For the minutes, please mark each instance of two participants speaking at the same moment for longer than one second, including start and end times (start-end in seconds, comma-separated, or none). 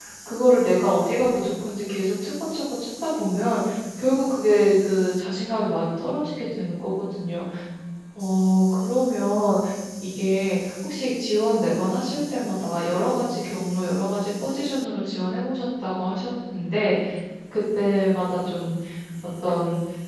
none